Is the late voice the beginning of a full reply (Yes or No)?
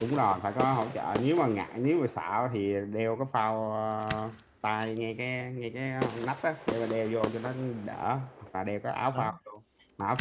No